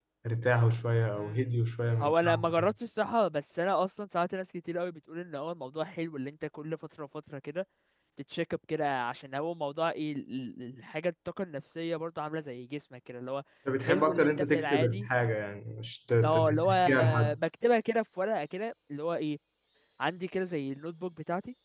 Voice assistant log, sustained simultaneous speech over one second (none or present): present